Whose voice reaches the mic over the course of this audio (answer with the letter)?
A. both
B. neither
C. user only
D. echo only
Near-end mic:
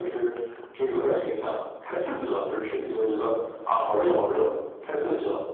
A